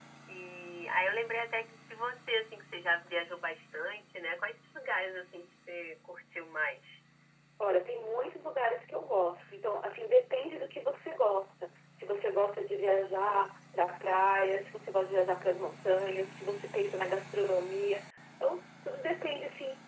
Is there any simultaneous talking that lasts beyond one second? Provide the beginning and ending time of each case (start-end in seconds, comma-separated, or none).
none